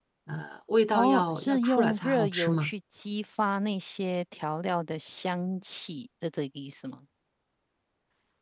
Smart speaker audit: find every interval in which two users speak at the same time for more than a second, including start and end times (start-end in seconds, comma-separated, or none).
0.9-2.7